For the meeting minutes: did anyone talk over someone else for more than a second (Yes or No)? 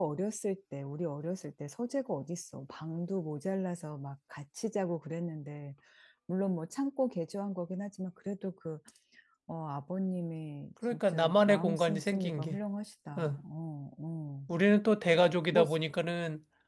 Yes